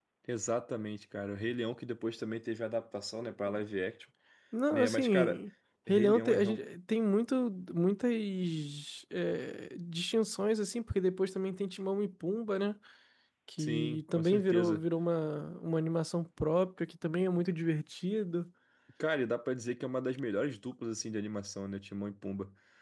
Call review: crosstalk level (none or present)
present